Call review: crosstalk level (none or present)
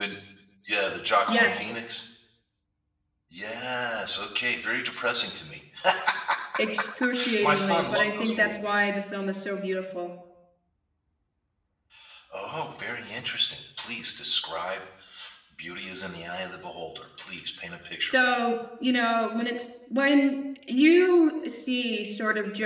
present